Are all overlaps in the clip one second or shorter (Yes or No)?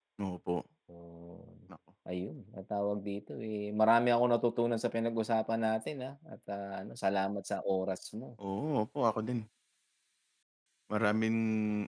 Yes